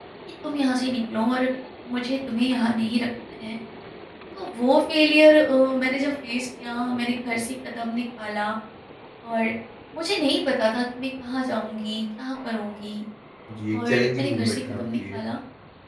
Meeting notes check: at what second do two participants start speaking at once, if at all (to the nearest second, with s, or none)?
14 s